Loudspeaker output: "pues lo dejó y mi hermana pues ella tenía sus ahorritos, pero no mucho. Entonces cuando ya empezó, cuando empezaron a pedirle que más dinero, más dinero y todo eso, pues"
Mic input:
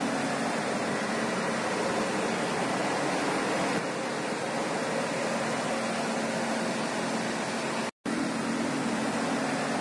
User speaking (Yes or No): No